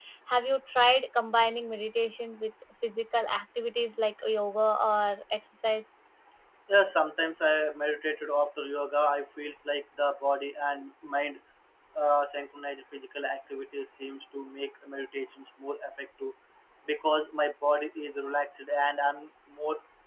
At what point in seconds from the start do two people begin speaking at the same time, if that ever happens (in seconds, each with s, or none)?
none